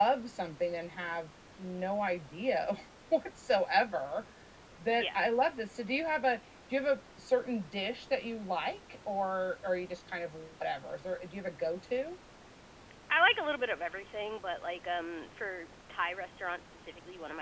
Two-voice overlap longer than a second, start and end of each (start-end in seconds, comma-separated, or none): none